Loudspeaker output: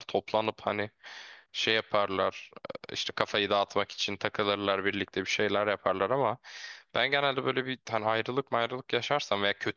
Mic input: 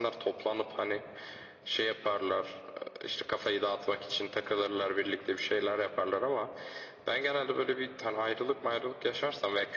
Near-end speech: none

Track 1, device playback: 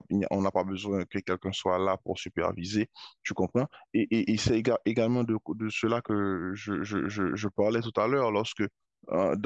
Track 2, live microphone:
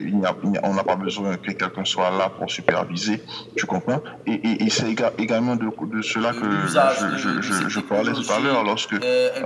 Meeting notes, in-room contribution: present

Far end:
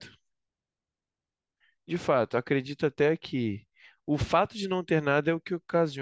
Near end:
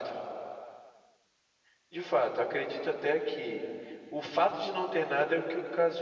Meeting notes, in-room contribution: none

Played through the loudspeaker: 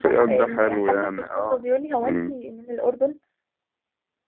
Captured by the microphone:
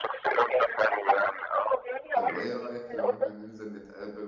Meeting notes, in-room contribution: present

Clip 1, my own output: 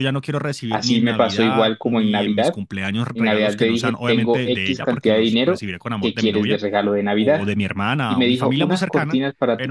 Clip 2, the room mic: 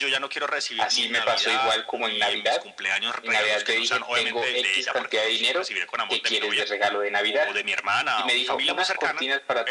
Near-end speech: none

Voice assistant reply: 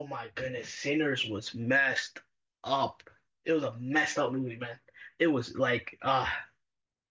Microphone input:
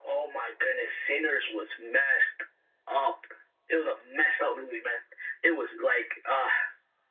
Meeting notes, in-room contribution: none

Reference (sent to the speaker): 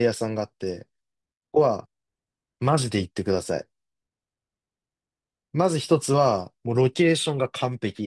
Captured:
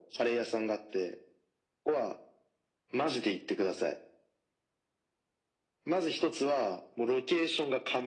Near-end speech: none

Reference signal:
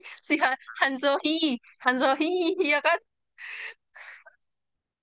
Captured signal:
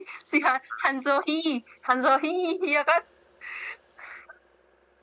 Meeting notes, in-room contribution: none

